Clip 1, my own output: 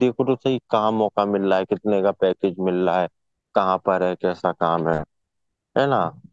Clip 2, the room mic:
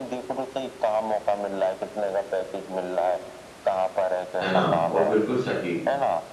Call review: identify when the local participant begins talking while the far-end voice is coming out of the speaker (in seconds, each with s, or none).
4.4 s